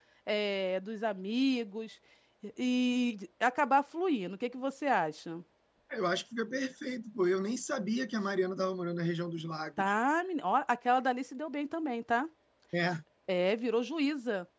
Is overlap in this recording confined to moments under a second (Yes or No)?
Yes